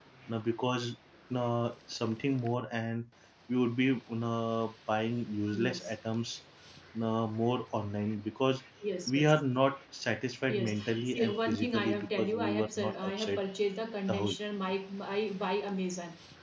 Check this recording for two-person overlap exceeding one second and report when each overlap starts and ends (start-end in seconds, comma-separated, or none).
10.5-13.4